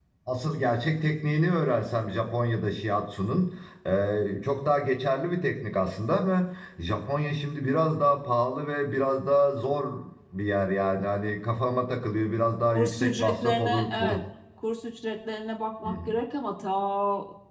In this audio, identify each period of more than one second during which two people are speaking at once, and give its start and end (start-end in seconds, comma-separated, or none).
12.7-14.2